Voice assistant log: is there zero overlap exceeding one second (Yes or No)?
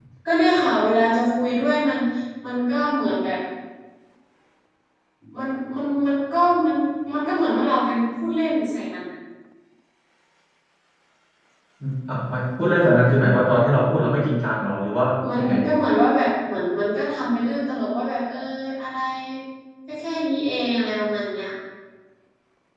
Yes